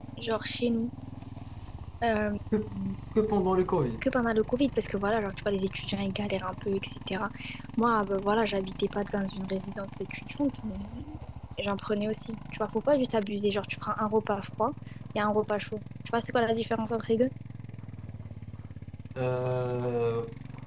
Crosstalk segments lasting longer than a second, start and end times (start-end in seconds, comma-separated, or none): none